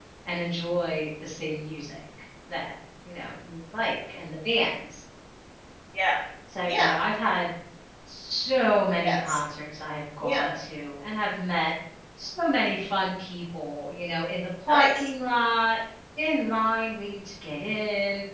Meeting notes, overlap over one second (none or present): none